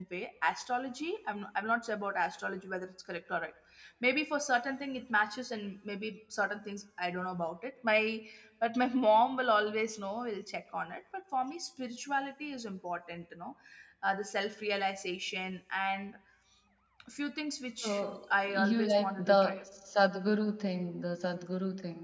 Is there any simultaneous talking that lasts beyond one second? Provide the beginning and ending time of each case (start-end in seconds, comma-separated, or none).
17.8-19.6